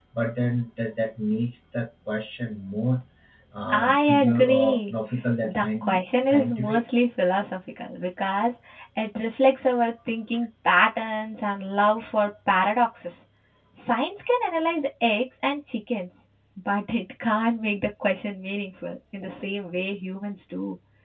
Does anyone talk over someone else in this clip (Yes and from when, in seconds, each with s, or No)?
Yes, from 3.7 s